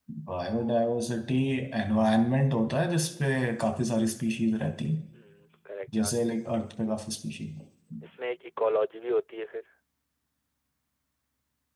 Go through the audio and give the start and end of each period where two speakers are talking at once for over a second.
none

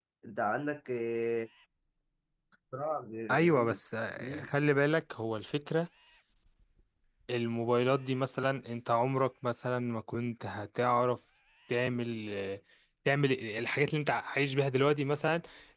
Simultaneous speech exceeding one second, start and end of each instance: none

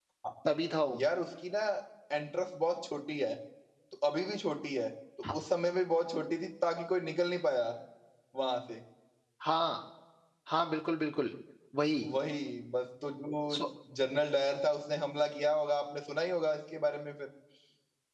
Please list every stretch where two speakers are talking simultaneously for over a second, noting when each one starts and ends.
none

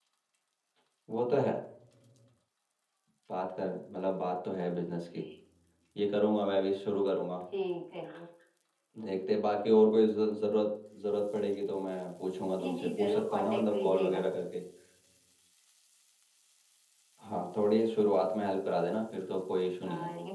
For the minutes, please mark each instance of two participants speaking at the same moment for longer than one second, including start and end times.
12.6-14.2

